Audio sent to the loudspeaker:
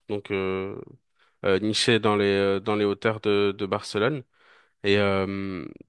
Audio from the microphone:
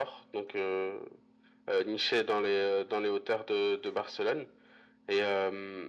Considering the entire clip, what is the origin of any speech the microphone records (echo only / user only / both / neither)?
echo only